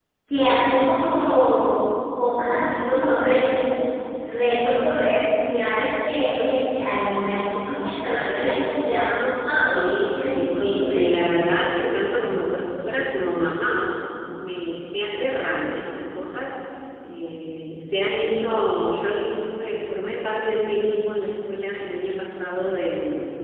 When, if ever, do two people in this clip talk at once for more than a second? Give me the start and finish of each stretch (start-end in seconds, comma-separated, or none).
9.7-11.1